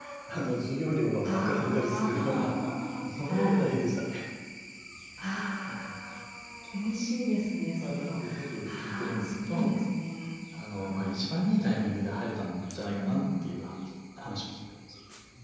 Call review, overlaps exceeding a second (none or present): present